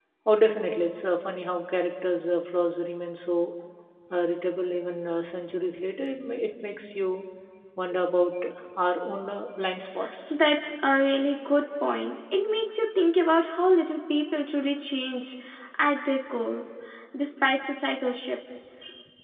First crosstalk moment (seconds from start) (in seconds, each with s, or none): none